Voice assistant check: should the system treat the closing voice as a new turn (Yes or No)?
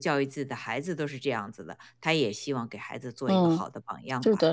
Yes